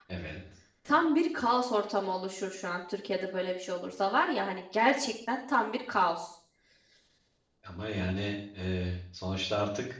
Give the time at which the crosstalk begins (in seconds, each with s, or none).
none